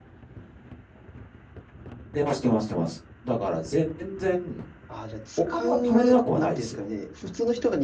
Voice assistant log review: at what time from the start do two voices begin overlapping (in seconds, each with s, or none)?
5.5 s